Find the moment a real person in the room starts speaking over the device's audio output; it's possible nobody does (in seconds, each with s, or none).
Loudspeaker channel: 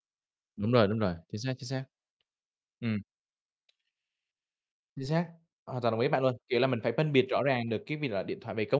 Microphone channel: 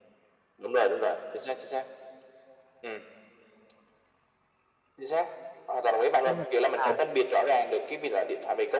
6.2 s